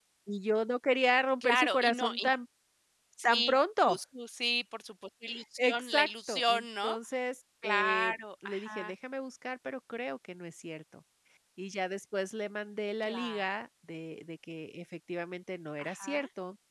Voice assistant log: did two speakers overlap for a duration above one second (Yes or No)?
Yes